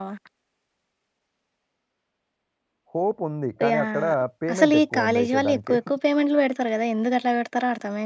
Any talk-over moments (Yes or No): Yes